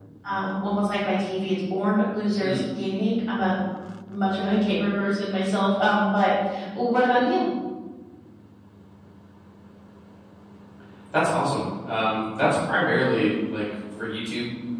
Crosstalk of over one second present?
No

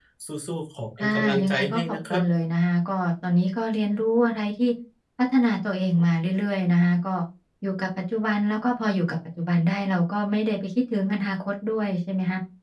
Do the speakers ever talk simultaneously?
Yes, from 1.0 s

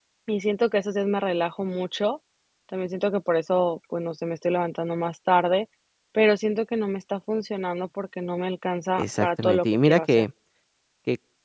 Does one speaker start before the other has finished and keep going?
Yes, from 9.0 s

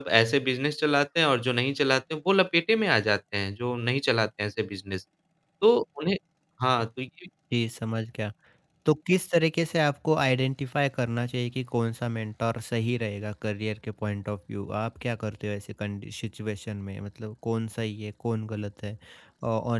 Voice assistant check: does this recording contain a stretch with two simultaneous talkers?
No

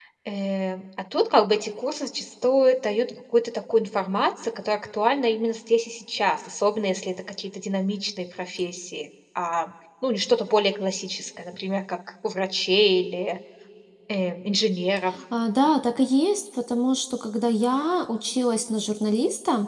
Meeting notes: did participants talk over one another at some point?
No

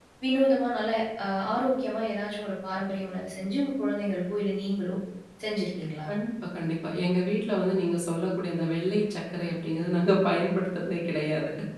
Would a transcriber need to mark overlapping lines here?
No

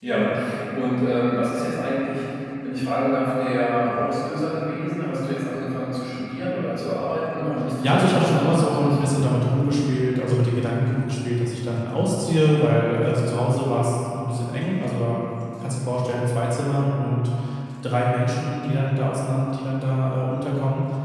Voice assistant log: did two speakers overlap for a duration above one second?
Yes, from 7.8 s

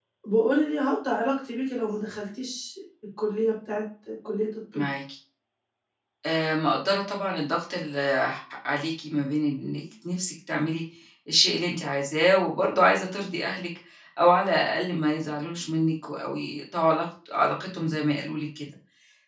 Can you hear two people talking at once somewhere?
No

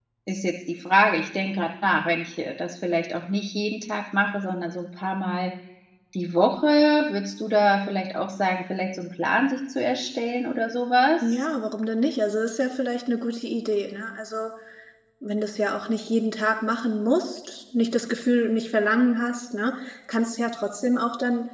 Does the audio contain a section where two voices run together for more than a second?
No

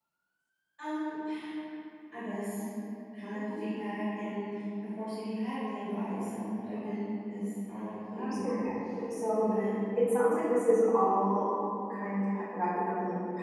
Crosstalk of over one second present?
No

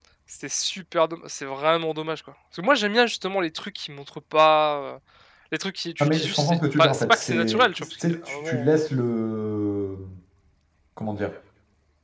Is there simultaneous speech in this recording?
Yes, from 6.0 s

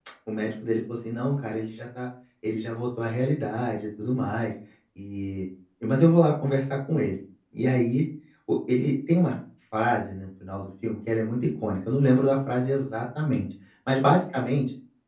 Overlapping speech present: No

